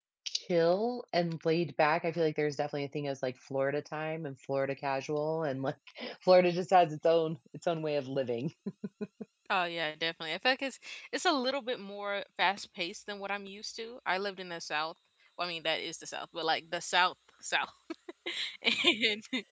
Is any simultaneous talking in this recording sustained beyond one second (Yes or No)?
No